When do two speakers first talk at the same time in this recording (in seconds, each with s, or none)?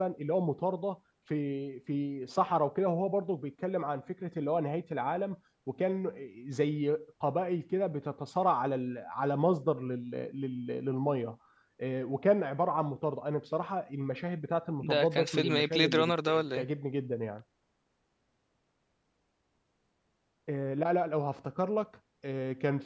14.8 s